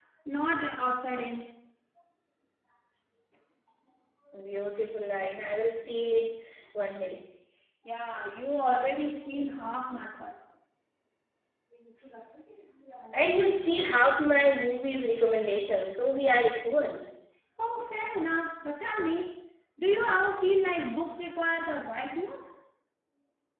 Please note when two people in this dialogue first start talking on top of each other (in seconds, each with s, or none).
none